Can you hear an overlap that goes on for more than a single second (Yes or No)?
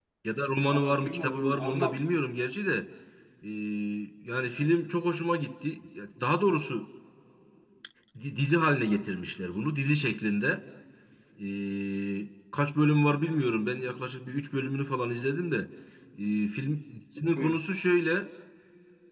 Yes